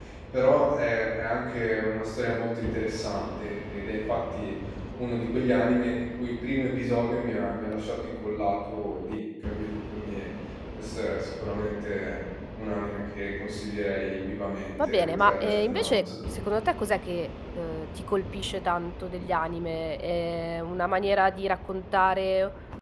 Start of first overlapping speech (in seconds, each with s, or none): 14.8 s